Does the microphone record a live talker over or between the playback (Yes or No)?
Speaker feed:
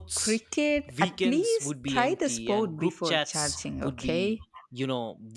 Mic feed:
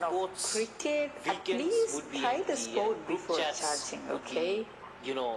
No